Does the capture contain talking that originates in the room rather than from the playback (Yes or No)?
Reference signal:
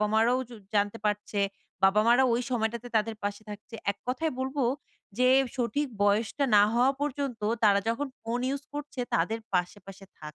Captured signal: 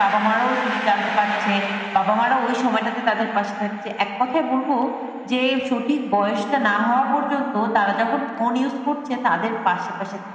No